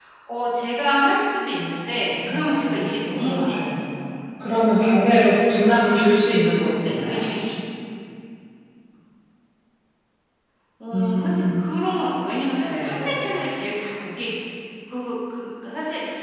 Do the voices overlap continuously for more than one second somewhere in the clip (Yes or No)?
Yes